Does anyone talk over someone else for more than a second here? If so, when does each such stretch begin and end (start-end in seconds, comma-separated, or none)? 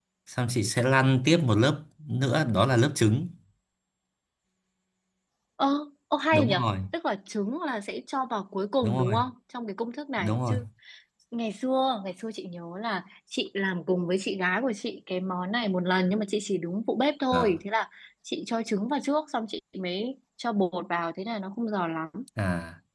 none